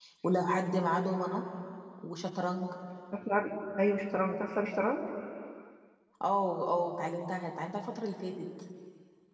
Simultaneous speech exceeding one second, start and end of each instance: none

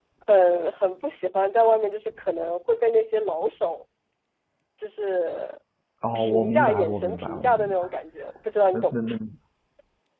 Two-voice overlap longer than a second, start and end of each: 6.2-7.9

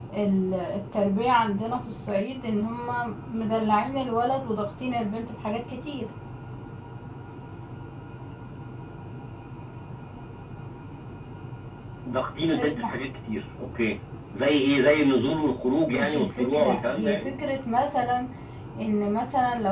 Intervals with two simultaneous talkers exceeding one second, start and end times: 15.9-17.3

